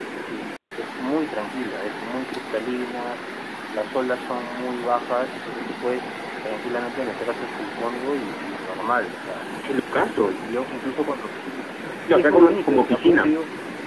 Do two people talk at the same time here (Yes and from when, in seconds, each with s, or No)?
Yes, from 12.1 s